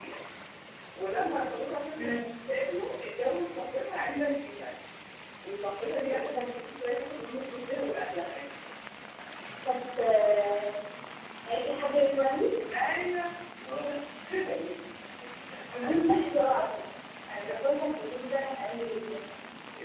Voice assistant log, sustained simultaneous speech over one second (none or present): present